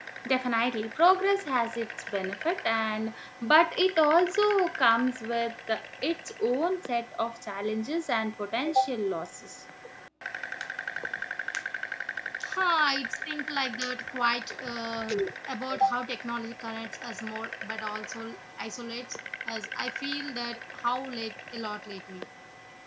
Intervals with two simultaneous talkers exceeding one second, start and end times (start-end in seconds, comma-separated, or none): none